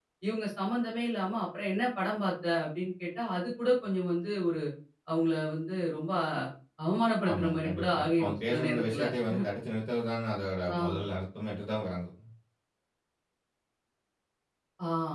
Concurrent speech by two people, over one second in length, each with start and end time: 7.3-9.0

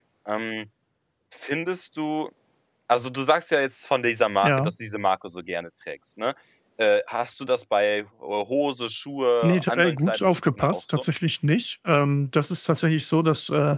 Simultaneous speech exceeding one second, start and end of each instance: 9.4-11.0

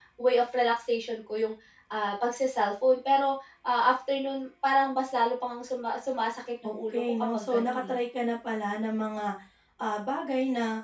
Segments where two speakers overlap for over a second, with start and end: 6.6-8.0

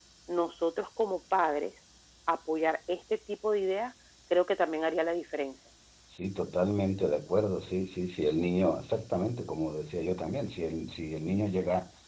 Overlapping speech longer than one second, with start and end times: none

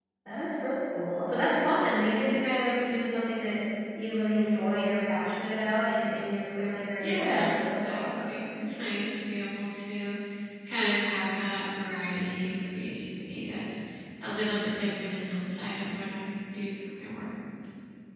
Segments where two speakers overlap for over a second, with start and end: 7.0-8.4

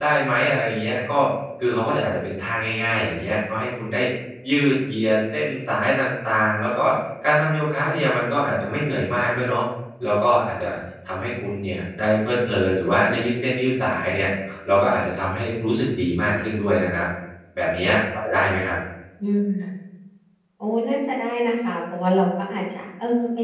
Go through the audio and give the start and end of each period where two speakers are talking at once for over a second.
none

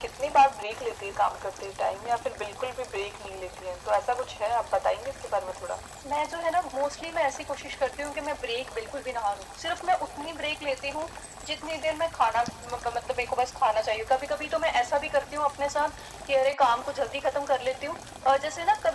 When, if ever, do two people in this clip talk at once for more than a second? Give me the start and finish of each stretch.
none

